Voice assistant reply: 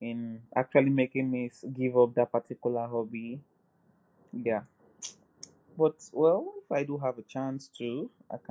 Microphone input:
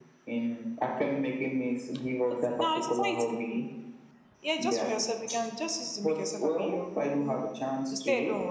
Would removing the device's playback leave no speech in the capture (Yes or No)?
No